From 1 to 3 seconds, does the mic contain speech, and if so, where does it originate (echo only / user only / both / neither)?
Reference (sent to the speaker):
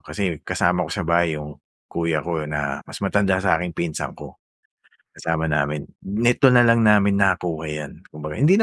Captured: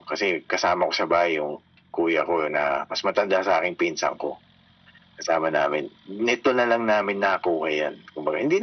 echo only